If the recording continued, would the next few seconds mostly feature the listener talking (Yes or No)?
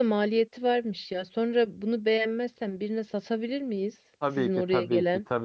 Yes